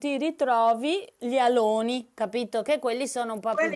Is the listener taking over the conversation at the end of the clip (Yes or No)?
Yes